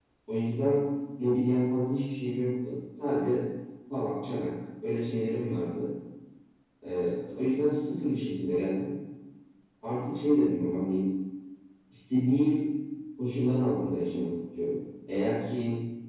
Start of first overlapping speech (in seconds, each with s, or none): none